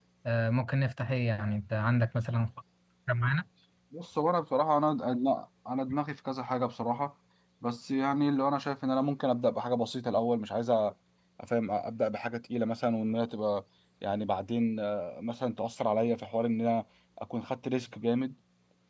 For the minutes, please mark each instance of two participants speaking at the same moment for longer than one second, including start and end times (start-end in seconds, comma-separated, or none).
none